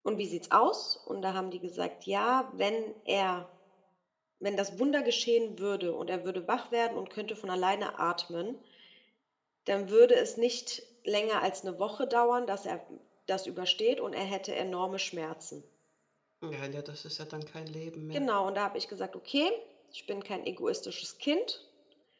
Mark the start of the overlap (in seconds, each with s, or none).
none